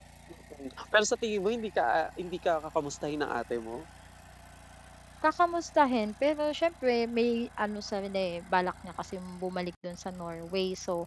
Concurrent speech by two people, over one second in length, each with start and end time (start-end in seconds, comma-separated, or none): none